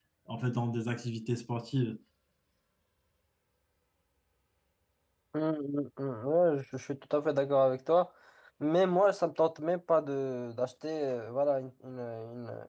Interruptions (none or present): none